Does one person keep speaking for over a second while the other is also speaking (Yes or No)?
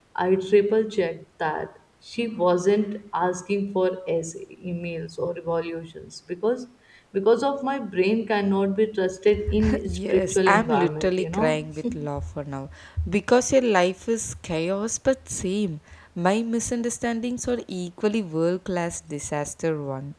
Yes